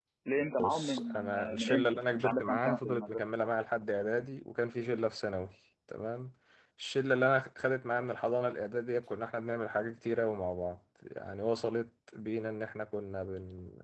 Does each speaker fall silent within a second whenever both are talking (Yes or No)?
No